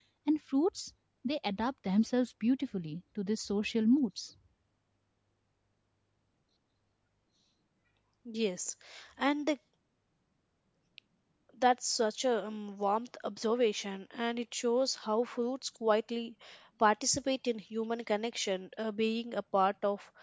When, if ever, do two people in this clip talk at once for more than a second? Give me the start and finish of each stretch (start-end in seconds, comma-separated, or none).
none